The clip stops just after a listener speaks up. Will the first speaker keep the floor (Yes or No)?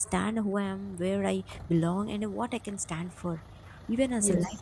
Yes